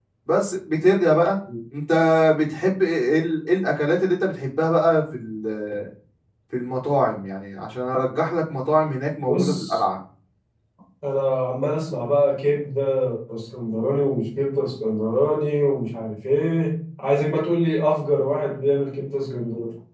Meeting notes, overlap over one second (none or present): none